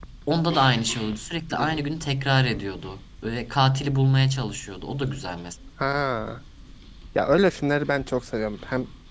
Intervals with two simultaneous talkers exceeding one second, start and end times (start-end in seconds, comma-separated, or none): none